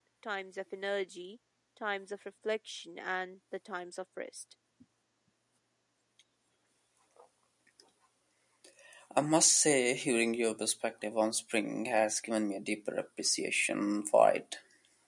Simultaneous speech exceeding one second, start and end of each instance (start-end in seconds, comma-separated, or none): none